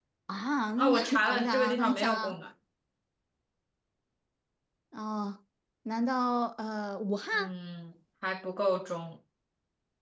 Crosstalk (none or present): present